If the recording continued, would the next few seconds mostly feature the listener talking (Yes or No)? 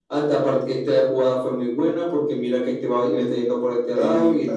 No